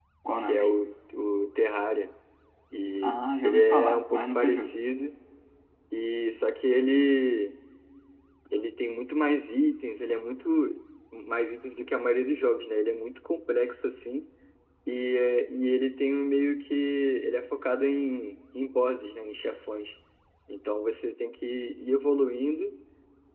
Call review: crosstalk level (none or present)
present